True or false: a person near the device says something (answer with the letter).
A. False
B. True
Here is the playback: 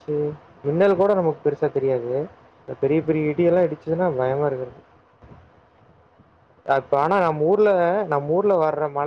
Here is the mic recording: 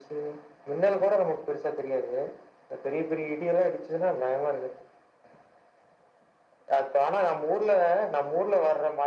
A